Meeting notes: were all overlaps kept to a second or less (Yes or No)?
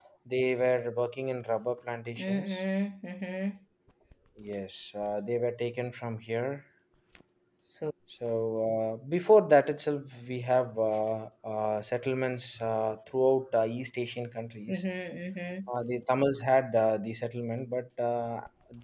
Yes